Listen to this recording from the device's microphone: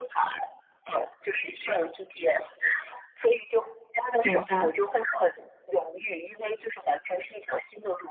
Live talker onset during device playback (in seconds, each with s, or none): 4.2 s